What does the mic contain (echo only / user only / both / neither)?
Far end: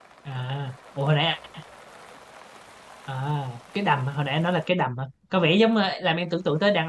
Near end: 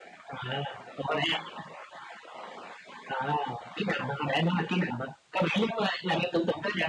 echo only